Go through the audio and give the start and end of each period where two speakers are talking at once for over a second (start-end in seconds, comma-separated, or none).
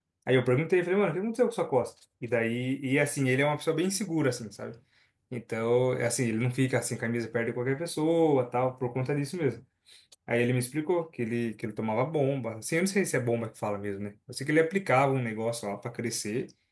none